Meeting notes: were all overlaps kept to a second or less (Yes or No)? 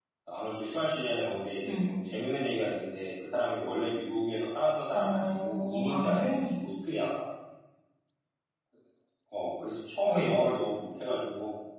No